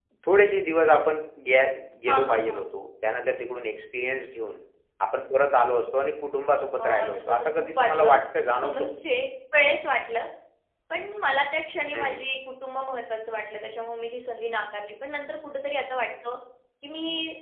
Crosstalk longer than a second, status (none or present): present